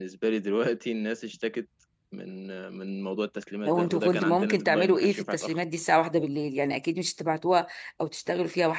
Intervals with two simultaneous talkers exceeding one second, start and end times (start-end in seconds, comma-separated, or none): 3.6-5.6